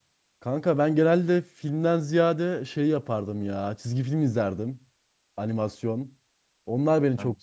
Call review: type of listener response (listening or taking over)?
listening